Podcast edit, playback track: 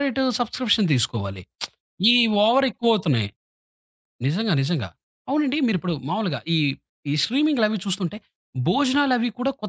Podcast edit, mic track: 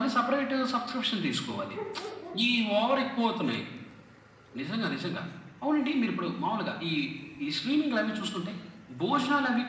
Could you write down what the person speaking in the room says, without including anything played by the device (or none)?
none